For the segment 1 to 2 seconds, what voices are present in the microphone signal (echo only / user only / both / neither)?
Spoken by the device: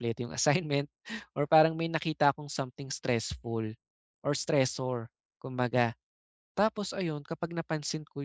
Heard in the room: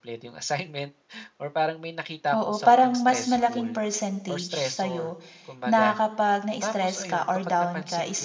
echo only